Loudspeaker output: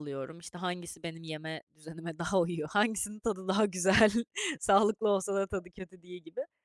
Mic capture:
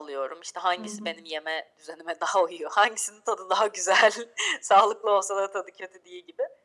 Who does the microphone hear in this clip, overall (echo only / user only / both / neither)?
both